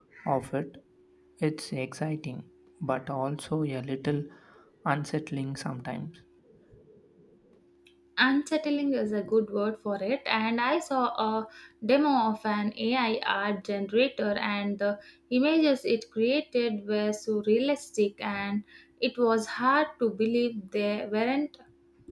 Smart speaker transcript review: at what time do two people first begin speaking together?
none

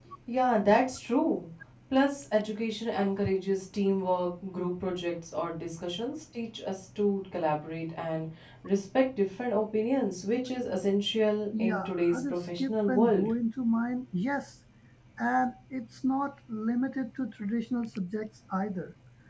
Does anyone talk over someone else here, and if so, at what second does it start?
11.5 s

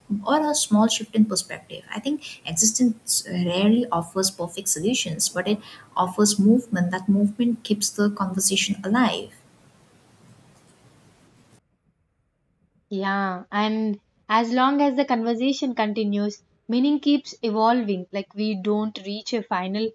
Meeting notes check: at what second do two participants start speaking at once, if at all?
none

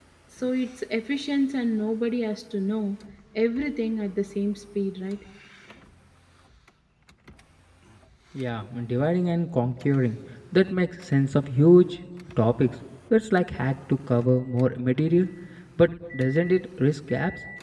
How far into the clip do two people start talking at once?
none

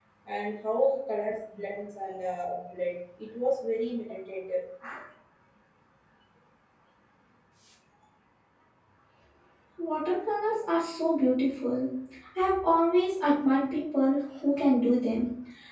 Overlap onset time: none

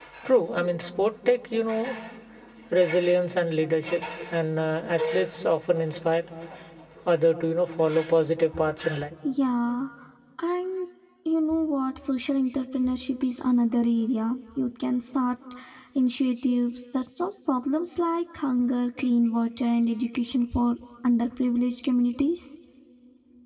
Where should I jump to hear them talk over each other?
none

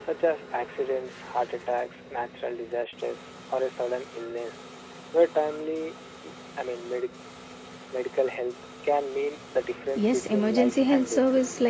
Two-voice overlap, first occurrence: 9.9 s

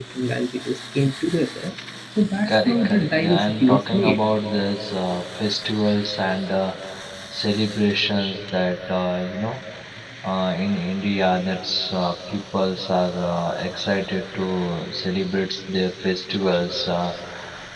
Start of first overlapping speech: 2.4 s

